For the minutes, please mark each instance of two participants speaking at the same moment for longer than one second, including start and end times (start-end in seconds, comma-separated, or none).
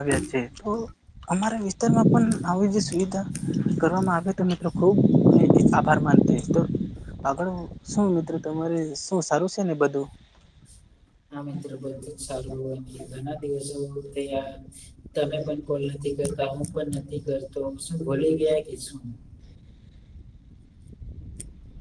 none